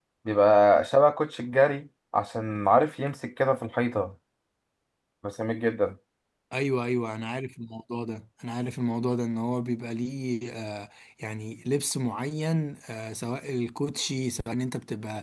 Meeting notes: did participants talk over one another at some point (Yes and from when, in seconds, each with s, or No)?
No